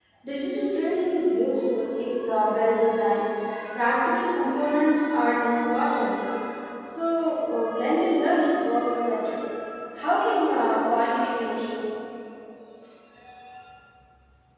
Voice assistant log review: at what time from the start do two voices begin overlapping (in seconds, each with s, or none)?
none